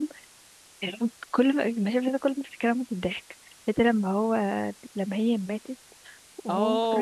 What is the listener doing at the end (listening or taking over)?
taking over